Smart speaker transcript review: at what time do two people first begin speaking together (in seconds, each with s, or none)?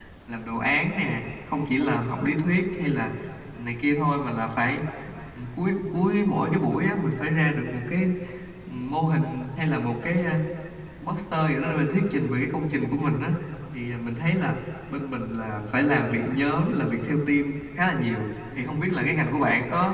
none